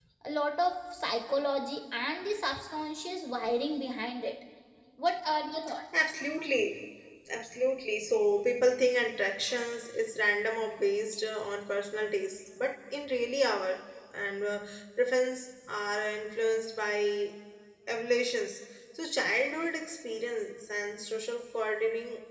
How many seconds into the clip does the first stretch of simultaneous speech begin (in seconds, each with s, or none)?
none